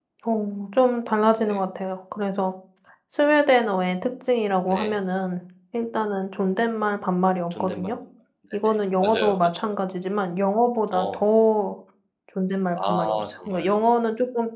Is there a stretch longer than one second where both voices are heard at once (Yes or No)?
Yes